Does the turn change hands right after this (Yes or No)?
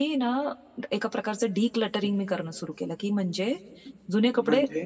No